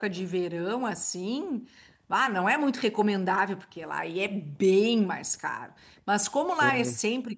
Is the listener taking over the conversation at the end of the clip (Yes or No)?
No